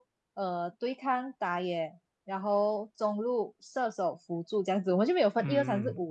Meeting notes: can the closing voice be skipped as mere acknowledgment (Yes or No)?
No